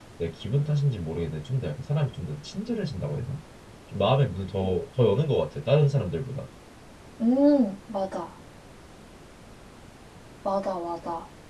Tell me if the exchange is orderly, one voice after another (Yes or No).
Yes